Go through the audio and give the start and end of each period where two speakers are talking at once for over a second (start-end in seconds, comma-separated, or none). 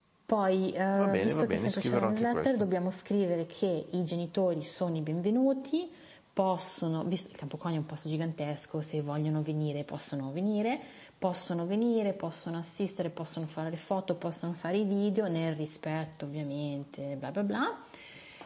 1.0-2.5